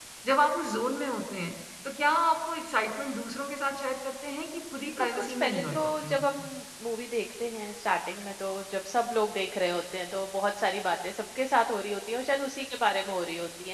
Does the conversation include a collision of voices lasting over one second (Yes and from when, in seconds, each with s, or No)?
Yes, from 5.0 s